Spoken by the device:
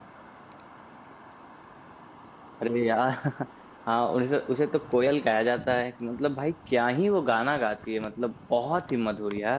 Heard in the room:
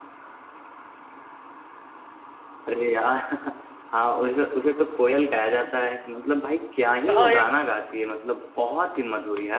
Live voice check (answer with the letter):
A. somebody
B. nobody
A